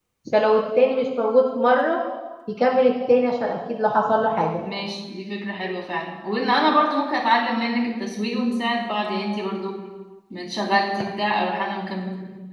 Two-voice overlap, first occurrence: none

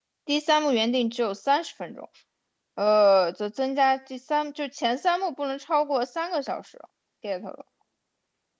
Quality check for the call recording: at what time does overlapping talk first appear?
none

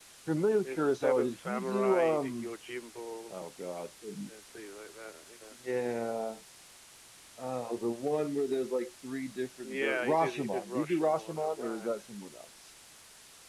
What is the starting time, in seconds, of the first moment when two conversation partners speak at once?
0.6 s

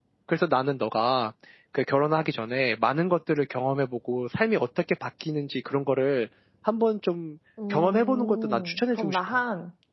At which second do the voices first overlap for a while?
7.6 s

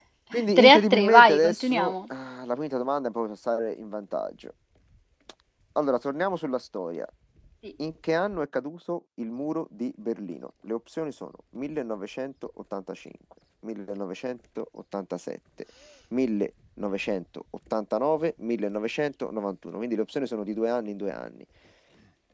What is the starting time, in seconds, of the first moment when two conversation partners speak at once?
0.6 s

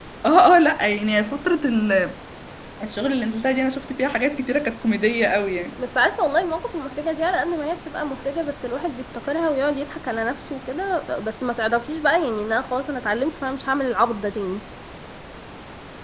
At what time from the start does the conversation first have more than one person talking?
none

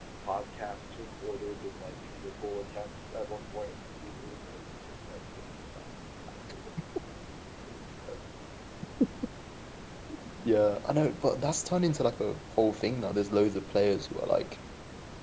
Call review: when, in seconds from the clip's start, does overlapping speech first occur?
none

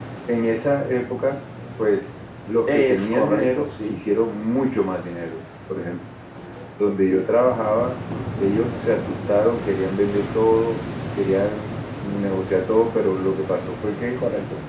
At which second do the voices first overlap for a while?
2.7 s

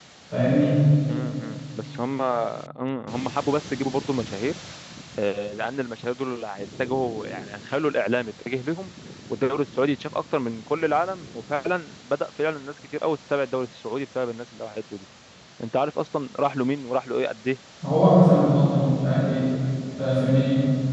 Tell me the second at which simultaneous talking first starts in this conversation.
none

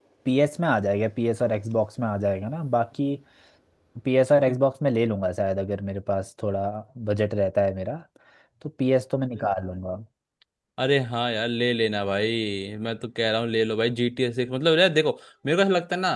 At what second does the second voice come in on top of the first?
none

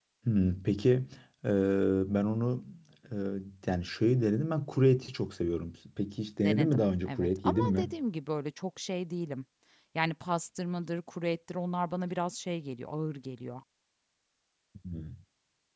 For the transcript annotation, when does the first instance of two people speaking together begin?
6.4 s

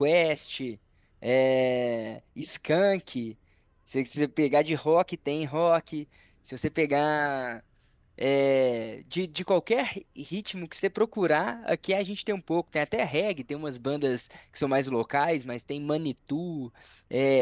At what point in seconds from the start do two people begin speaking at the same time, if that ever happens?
none

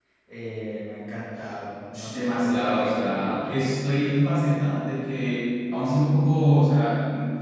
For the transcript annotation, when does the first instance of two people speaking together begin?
1.9 s

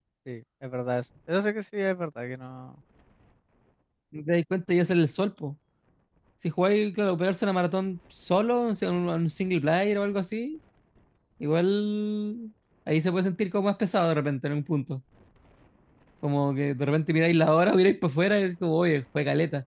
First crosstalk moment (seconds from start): none

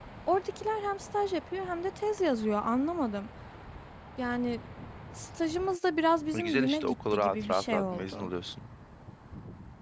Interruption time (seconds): 6.3 s

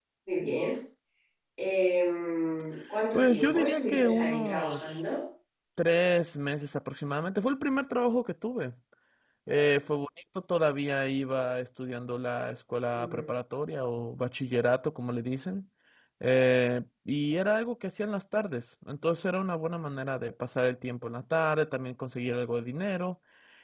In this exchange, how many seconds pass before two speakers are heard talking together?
3.1 s

